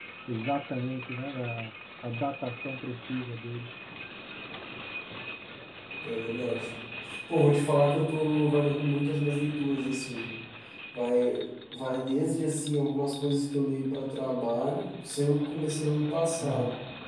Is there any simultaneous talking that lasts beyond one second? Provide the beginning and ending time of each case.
none

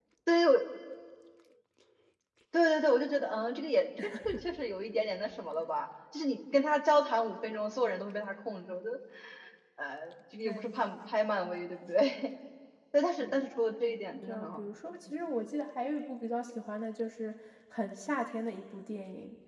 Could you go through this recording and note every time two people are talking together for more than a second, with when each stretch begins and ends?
none

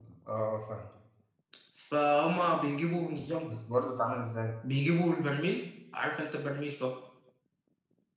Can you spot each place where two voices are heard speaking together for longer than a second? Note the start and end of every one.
none

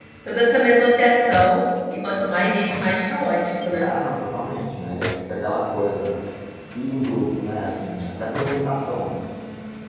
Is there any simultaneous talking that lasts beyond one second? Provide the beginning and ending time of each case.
none

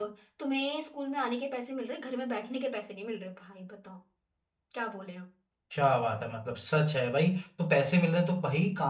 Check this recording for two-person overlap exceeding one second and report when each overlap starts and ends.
none

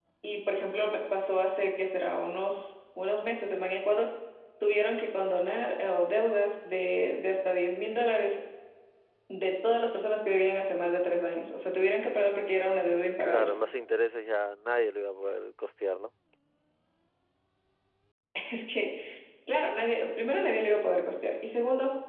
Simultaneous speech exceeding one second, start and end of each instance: none

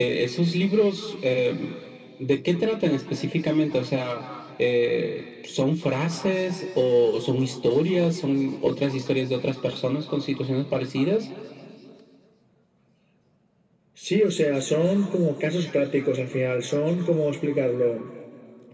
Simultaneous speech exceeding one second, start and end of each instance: none

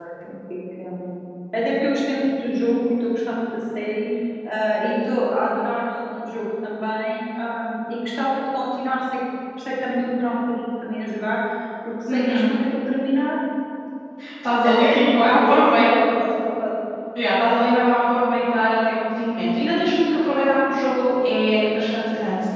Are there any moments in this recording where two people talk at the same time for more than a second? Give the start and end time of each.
14.6-15.9

